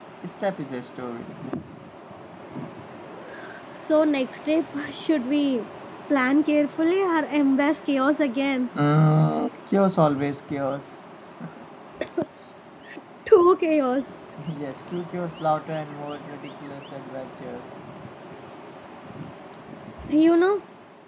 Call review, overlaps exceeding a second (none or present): none